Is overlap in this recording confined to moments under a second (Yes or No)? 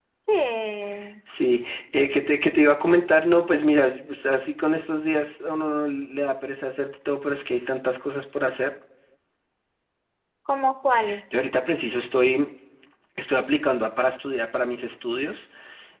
Yes